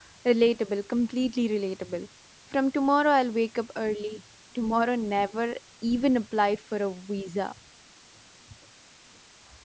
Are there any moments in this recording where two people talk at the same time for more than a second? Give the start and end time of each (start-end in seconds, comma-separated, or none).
none